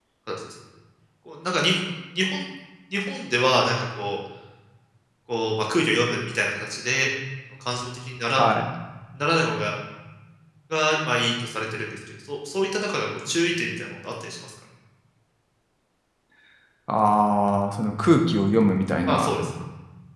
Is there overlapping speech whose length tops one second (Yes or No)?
No